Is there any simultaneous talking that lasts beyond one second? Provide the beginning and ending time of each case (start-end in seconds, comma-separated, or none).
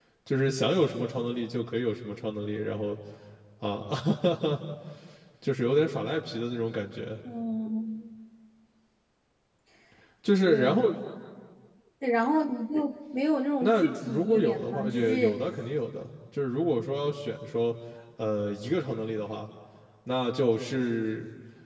13.6-15.4